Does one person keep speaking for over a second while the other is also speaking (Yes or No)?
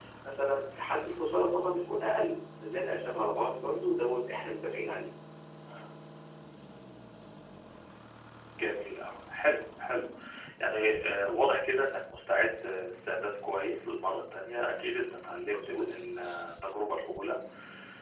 No